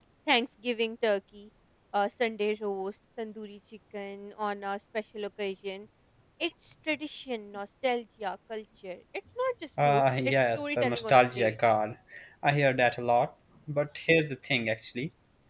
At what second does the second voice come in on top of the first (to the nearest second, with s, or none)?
10 s